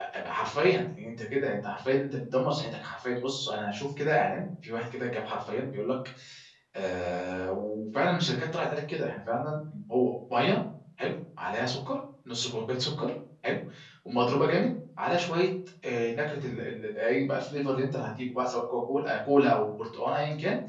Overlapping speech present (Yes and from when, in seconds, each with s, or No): No